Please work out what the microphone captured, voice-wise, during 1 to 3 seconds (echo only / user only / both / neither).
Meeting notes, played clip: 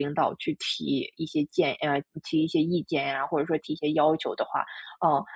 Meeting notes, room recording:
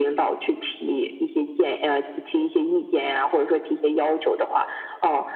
echo only